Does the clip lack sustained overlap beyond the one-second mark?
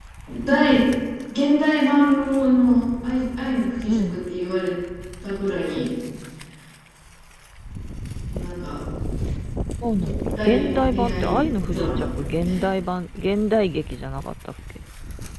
No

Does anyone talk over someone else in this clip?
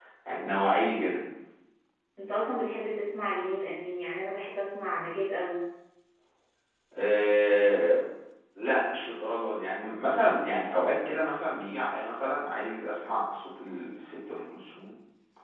No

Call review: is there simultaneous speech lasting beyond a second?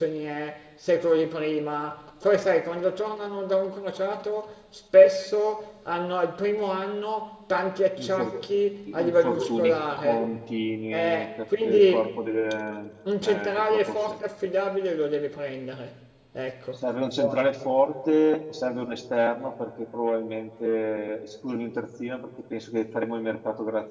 Yes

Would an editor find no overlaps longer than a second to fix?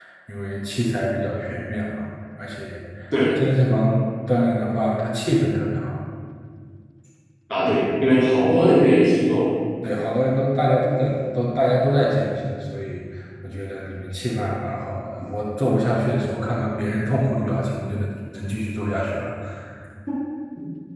Yes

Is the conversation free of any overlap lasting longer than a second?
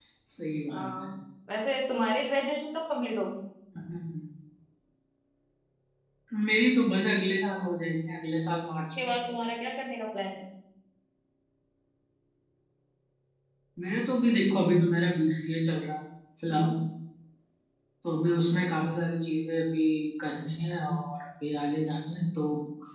Yes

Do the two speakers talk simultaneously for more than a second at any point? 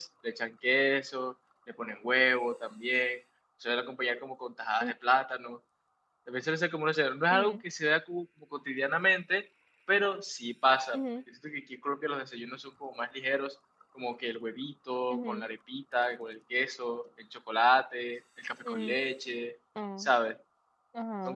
No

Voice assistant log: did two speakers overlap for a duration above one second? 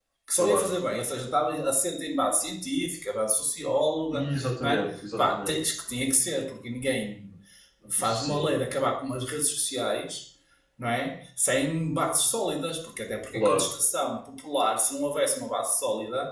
Yes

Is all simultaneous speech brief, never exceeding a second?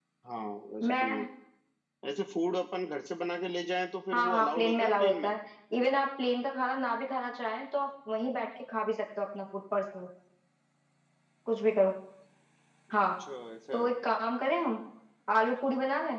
No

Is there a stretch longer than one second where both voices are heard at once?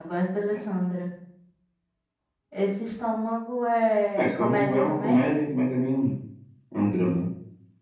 Yes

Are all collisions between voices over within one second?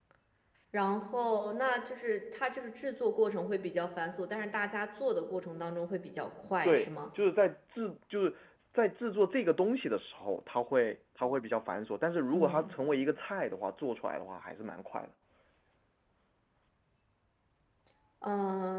Yes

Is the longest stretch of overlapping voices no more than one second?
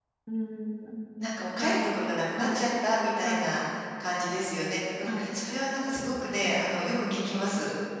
No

